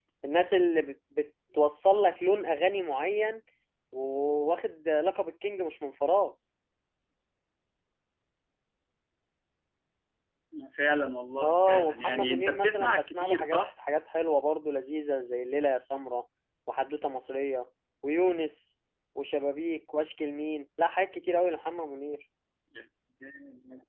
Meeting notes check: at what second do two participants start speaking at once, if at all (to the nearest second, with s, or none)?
11 s